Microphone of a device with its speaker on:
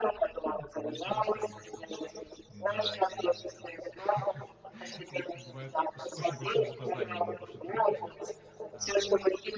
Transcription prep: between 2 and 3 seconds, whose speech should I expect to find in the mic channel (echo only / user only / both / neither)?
both